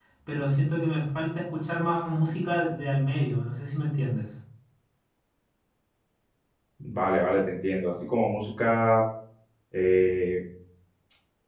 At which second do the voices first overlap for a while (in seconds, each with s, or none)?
none